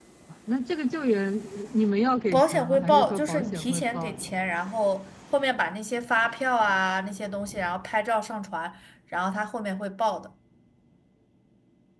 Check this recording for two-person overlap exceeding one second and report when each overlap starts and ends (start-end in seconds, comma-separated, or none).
2.3-4.3